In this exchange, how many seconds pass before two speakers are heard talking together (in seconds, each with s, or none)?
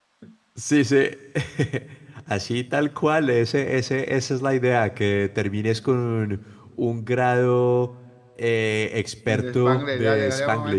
9.3 s